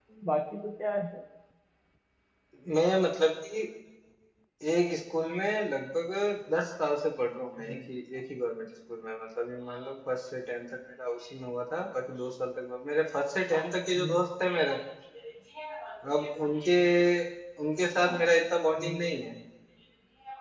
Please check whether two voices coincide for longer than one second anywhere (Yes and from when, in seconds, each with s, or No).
No